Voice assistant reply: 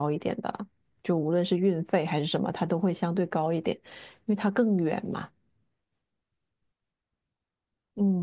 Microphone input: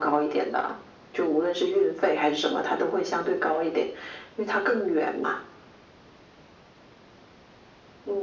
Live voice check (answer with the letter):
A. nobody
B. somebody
A